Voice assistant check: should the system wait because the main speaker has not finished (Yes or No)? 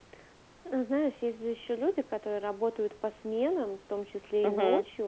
Yes